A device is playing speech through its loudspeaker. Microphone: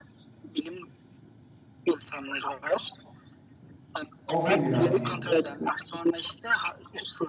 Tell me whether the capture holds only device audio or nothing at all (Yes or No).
No